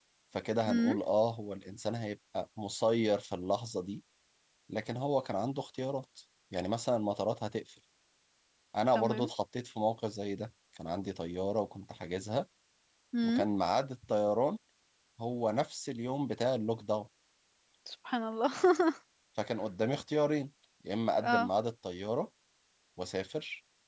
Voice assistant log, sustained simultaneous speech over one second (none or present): none